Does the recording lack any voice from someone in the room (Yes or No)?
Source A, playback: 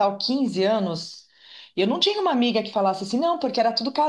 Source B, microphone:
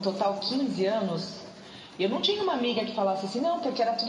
Yes